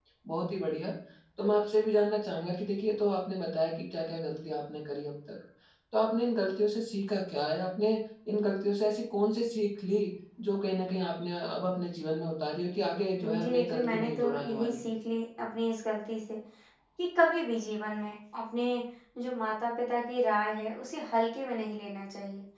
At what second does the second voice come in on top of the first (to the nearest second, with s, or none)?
13 s